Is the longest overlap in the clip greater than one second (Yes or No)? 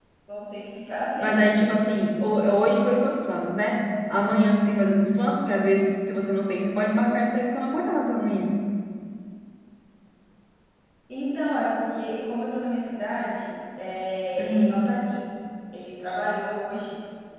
No